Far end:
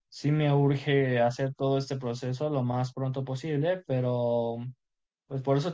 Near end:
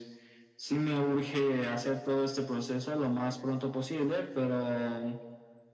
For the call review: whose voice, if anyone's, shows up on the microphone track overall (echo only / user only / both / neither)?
echo only